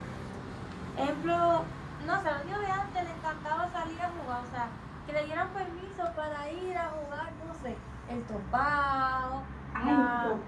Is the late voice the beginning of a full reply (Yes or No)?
Yes